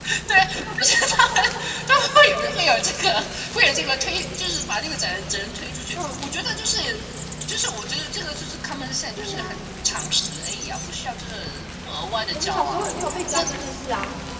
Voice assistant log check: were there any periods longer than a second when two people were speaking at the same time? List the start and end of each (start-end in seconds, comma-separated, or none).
none